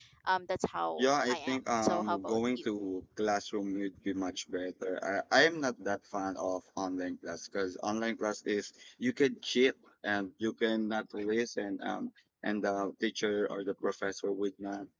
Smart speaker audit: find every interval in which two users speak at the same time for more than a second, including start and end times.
1.0-2.6

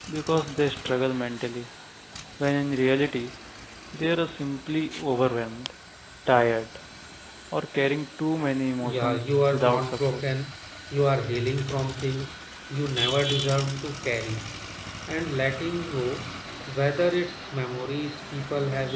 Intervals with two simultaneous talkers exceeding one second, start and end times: 8.8-10.2

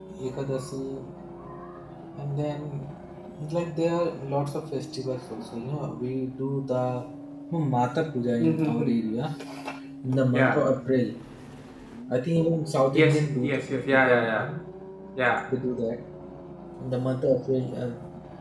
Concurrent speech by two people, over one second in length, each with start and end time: 12.9-14.4

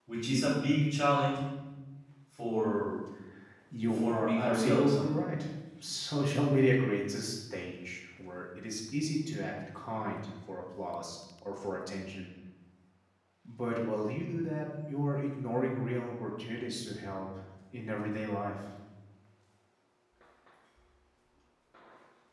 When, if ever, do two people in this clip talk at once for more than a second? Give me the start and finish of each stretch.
3.9-5.2

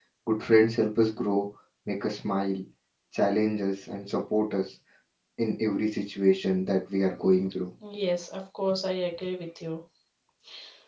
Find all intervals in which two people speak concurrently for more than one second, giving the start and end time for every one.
none

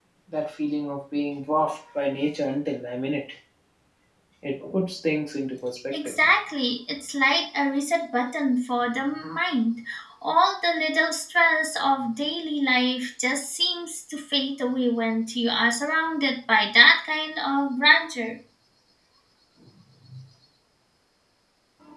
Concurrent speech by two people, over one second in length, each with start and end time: none

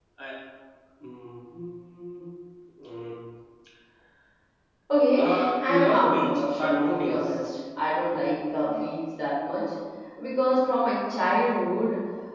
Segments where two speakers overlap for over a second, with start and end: 5.2-7.4

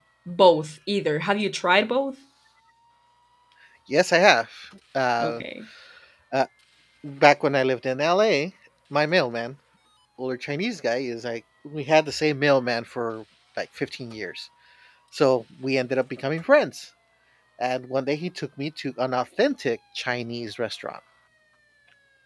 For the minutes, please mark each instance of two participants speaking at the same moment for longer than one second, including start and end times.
none

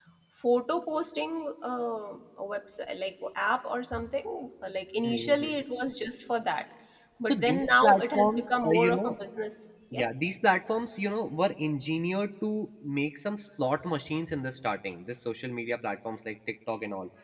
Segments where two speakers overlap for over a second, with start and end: 7.3-9.2

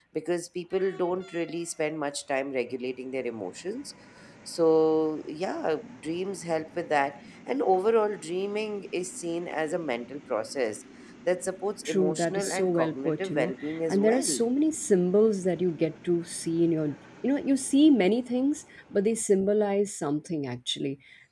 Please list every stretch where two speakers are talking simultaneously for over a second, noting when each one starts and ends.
11.8-14.4

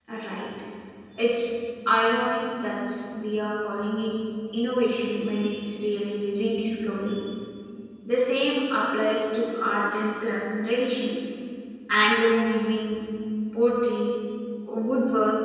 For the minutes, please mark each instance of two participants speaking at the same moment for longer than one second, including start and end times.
none

